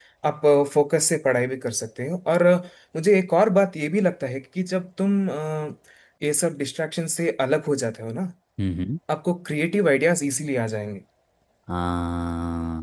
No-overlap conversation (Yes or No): Yes